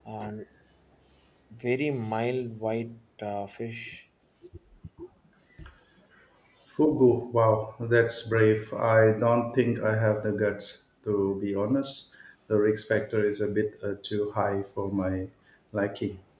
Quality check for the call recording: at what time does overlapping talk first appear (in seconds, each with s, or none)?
none